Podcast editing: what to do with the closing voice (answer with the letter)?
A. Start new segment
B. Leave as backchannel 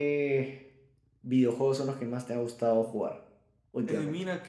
A